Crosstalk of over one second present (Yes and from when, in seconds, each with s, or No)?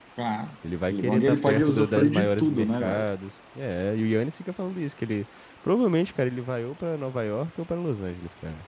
Yes, from 0.9 s